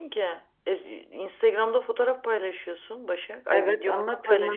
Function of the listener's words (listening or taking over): taking over